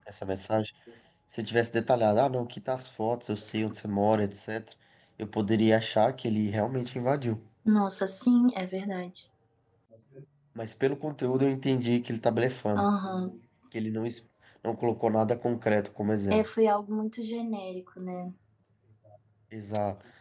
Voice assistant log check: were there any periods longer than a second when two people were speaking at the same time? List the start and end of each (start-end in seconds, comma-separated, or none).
none